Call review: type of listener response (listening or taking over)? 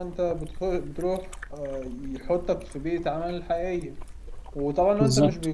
listening